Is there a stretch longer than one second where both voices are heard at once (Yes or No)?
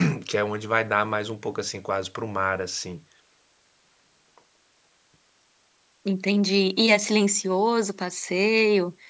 No